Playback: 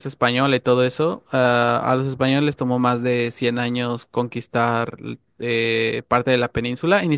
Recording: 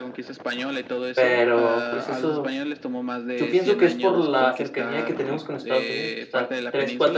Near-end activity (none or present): present